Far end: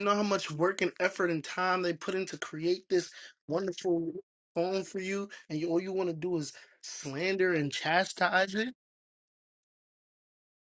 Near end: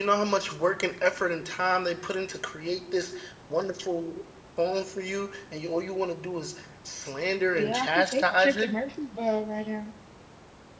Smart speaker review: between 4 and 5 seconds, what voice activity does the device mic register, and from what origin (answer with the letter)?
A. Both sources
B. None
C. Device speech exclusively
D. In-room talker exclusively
C